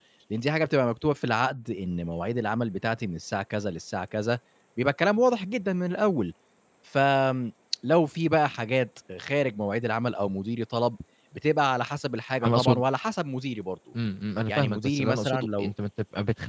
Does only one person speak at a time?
No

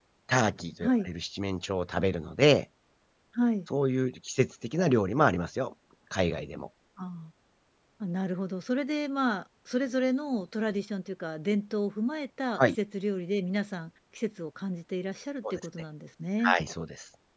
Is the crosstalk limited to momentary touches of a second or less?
Yes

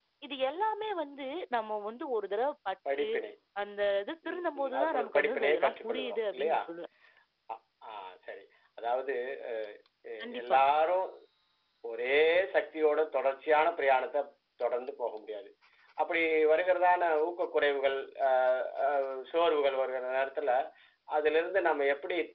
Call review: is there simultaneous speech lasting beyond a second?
Yes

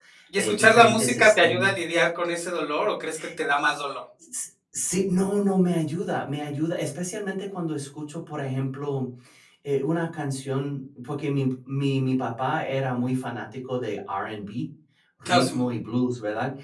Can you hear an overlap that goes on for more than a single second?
Yes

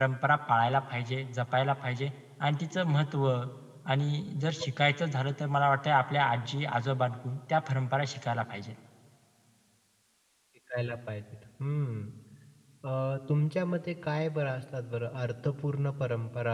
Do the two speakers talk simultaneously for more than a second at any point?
No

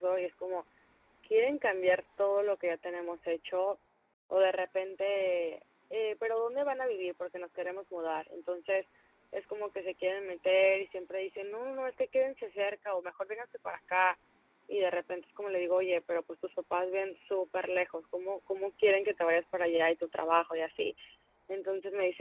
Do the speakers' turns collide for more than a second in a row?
No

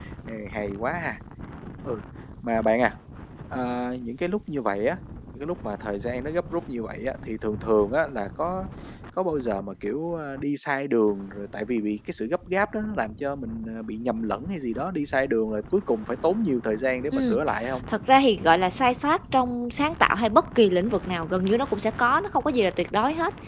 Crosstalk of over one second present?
No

